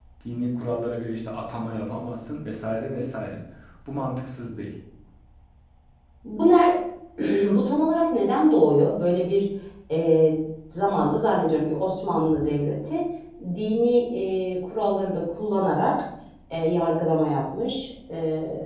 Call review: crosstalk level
none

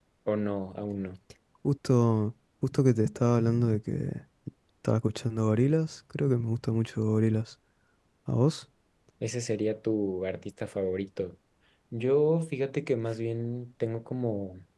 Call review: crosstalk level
none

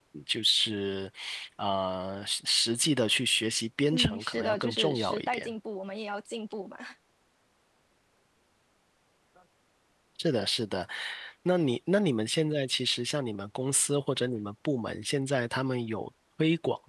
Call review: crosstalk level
present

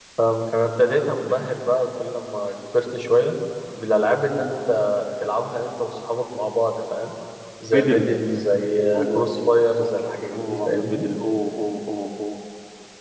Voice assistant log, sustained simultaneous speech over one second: present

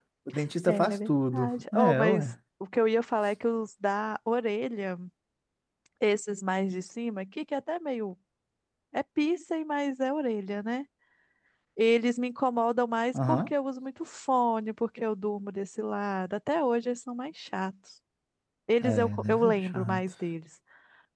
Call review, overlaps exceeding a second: present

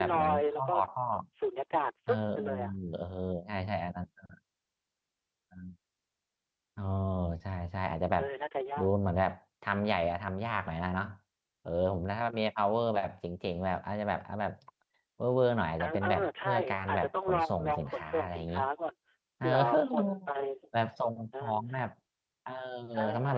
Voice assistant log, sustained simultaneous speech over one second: present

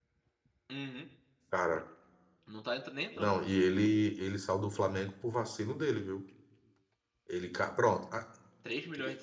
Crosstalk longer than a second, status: none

